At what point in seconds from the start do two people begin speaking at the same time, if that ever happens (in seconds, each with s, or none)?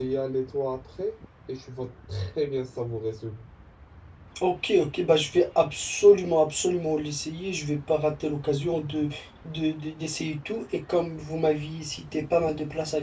none